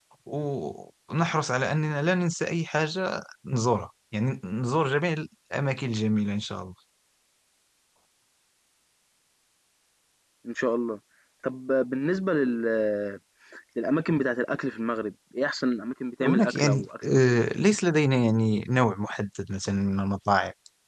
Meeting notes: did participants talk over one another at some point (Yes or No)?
Yes